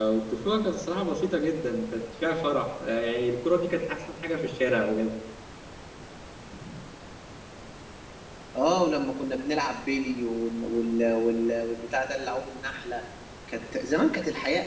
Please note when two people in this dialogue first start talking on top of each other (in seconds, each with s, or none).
none